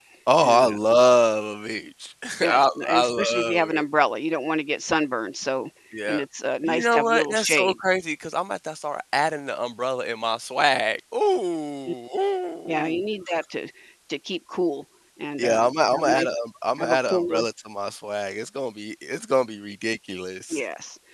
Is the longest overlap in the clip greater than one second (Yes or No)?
Yes